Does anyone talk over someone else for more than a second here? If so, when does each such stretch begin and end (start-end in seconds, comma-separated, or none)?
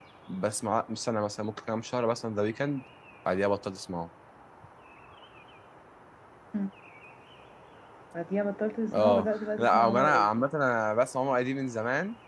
8.9-10.3